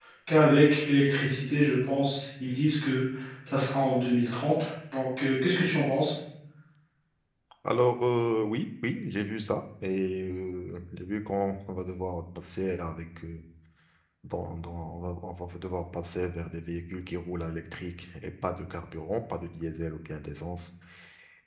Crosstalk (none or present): none